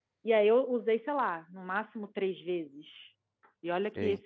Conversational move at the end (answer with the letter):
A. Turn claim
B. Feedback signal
B